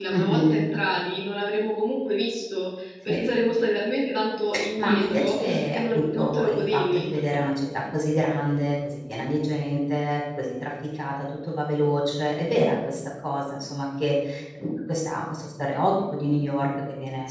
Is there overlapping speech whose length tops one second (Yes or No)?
Yes